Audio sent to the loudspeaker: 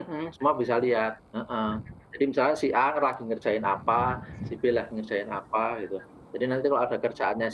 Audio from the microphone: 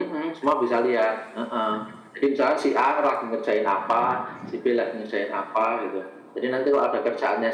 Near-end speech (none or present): none